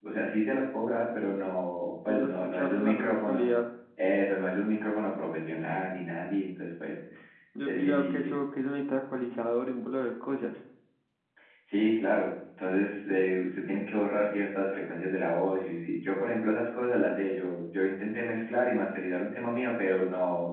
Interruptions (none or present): present